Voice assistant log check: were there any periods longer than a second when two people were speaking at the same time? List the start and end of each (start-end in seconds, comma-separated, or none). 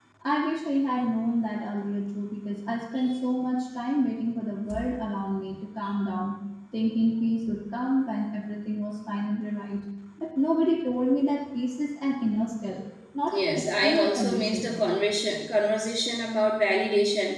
13.3-14.8